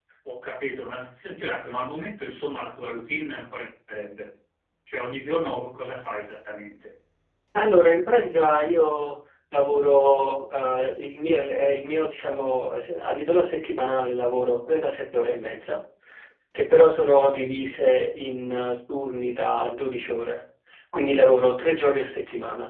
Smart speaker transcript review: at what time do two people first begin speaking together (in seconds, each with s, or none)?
none